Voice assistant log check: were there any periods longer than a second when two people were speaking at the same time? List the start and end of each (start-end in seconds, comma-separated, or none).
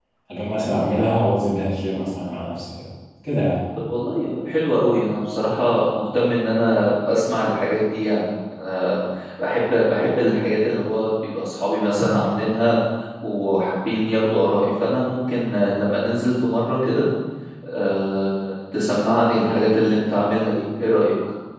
none